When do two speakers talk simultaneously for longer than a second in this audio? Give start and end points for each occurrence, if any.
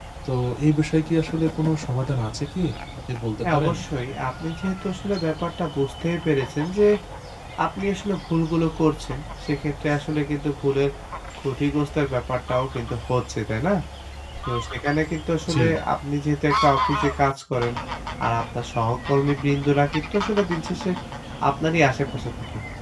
none

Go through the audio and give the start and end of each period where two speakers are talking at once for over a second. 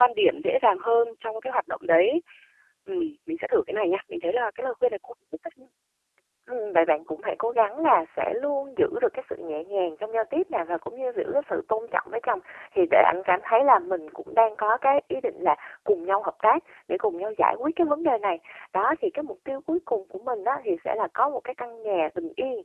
none

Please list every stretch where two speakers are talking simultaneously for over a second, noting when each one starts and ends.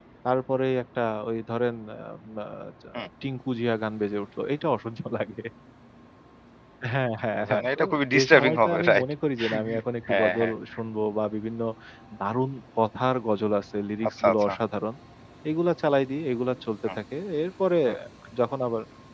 7.4-9.0

